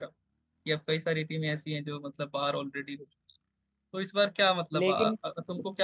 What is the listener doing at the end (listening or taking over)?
listening